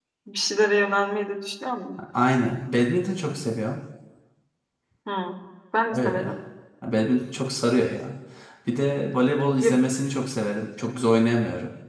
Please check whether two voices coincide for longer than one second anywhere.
No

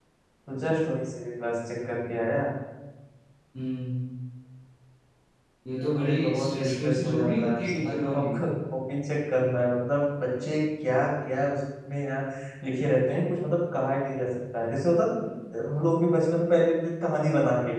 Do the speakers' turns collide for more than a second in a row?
Yes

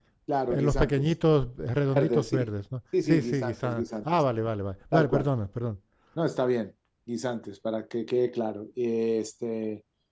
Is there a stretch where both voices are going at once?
Yes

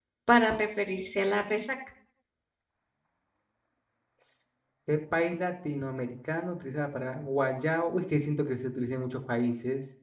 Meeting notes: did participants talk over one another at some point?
No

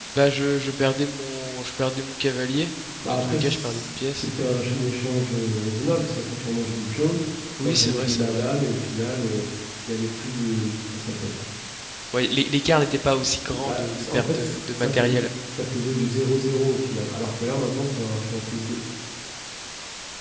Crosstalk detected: Yes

